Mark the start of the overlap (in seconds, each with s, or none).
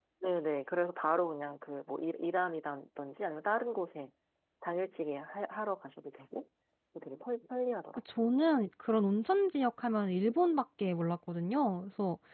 none